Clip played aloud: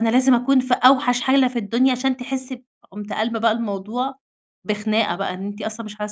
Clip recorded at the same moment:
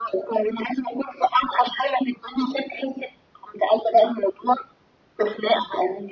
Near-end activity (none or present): none